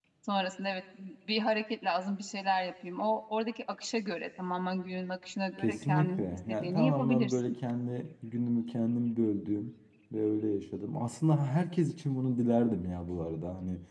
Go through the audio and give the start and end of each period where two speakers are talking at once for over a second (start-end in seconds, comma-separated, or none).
5.6-7.5